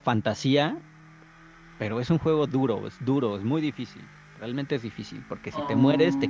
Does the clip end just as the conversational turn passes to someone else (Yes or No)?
No